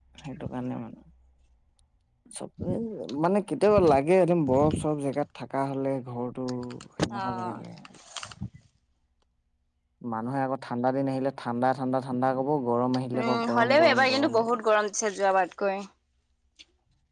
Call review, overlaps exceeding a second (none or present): present